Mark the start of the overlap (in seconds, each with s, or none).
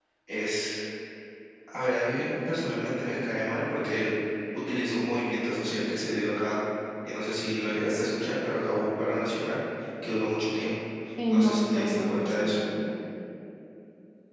11.3 s